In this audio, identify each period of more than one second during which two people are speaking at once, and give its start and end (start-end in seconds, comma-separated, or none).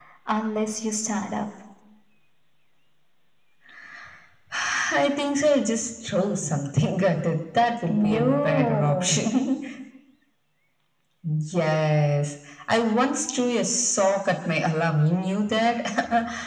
7.9-9.2